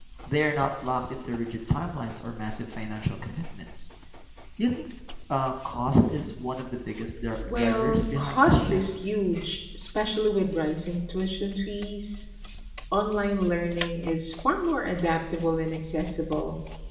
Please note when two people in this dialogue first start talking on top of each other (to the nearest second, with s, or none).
7 s